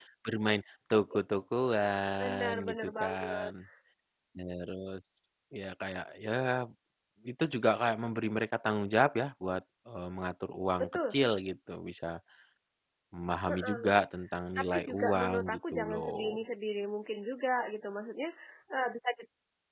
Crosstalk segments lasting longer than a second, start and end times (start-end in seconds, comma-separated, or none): 2.2-3.5, 14.6-16.4